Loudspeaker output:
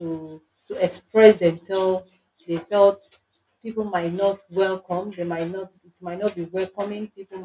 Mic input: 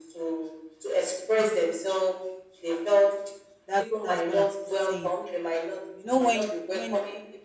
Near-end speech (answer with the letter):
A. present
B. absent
A